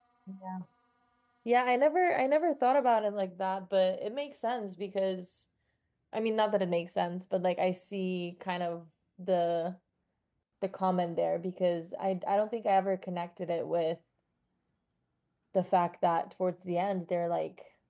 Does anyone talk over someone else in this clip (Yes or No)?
No